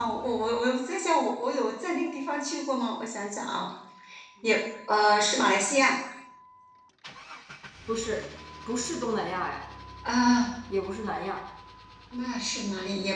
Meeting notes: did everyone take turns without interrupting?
Yes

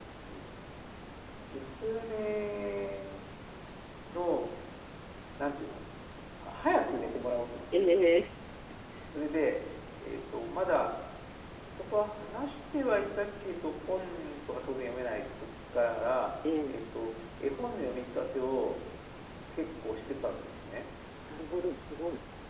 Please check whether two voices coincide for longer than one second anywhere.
No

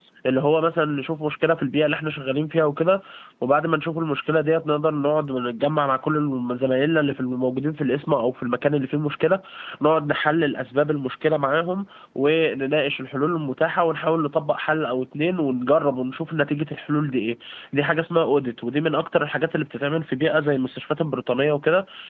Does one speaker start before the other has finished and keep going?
No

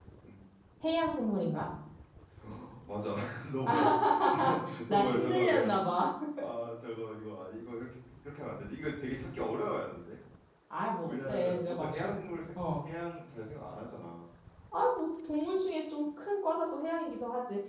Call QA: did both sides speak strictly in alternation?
No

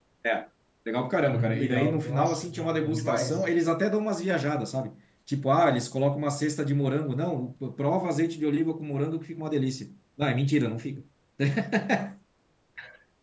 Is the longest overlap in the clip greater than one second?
Yes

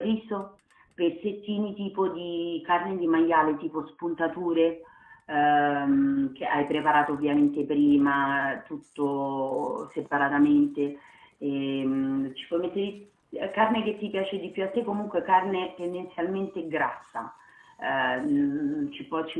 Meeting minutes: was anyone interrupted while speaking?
No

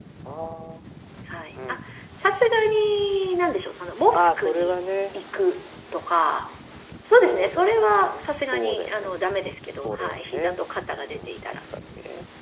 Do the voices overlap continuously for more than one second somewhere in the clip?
Yes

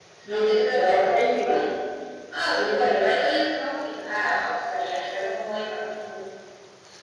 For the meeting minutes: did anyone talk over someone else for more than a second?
Yes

